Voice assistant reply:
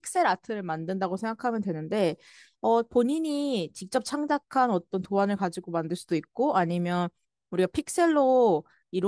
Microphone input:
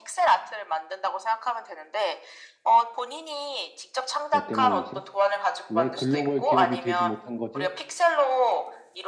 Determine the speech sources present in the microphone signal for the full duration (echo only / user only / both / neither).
both